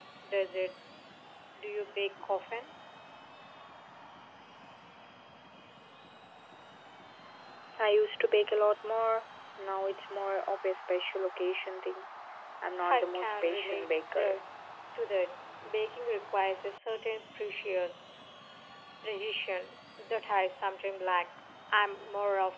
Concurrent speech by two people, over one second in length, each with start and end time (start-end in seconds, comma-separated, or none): 12.9-14.4